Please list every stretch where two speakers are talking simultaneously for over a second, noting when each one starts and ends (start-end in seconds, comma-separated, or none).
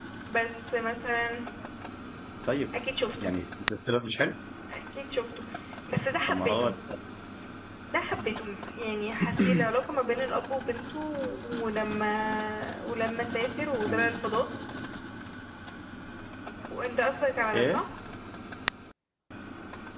none